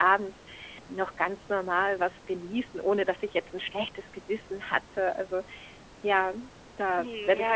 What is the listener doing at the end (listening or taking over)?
taking over